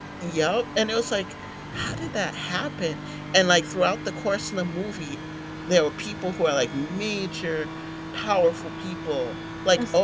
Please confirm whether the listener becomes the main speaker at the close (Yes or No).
No